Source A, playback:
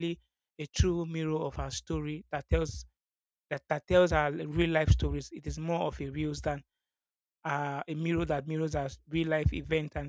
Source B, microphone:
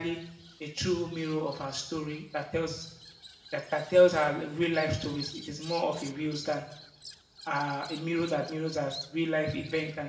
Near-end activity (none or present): none